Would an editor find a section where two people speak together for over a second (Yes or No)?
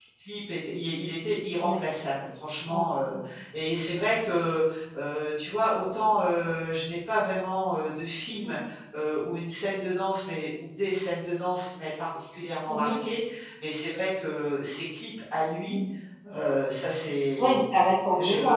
No